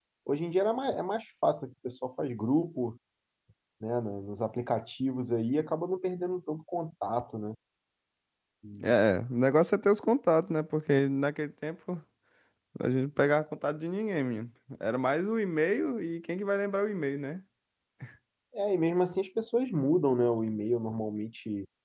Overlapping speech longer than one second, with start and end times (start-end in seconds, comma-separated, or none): none